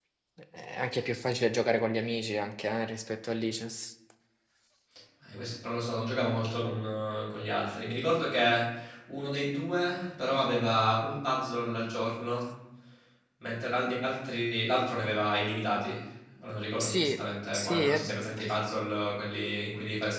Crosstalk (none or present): present